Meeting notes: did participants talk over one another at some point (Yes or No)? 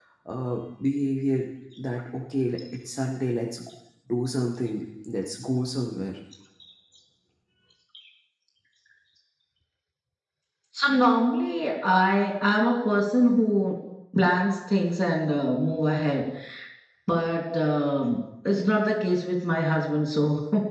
No